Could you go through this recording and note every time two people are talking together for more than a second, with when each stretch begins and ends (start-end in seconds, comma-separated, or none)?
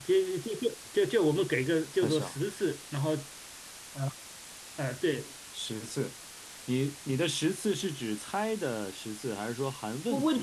none